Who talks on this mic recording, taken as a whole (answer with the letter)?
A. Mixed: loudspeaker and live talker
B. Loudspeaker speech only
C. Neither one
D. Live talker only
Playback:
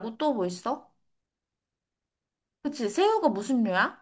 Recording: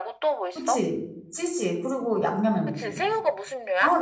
A